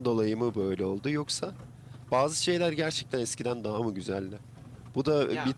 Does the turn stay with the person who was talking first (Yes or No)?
No